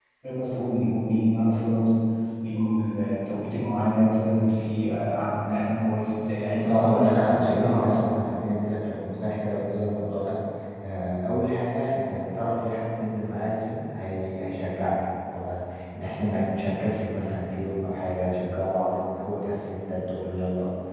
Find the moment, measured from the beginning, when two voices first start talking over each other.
7 s

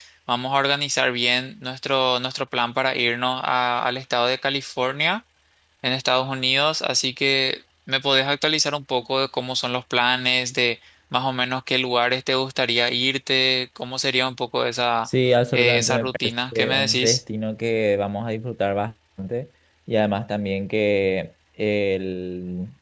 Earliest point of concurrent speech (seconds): 16 s

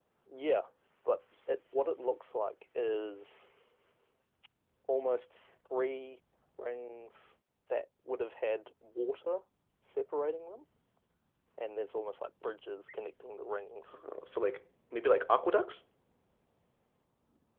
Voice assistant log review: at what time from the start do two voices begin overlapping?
none

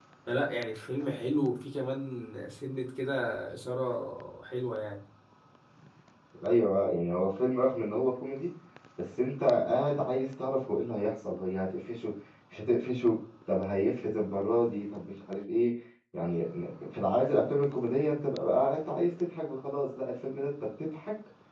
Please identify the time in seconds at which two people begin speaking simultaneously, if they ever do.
none

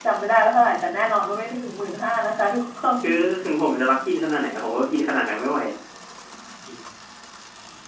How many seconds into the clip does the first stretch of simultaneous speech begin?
none

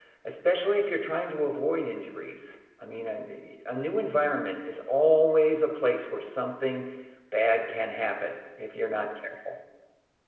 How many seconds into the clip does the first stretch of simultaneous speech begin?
none

